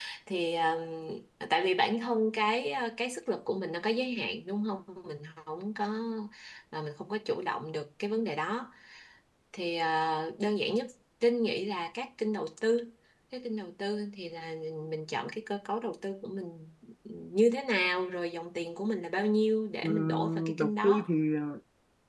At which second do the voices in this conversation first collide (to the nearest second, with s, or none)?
20 s